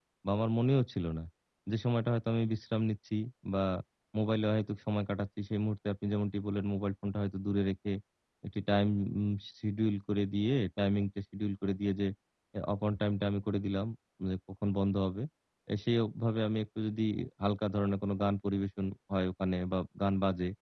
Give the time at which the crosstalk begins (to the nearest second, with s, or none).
none